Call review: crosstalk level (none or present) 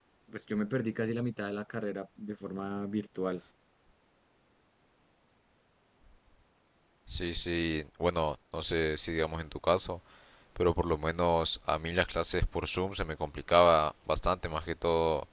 none